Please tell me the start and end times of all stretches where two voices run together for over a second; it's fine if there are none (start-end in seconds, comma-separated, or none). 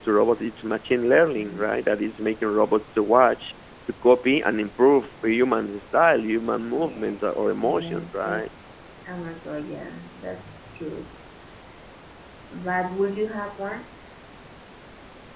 6.8-8.5